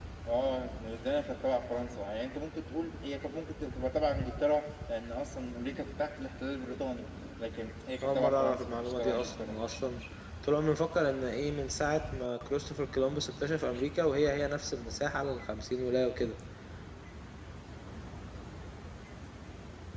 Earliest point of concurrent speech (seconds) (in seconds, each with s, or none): 8.0 s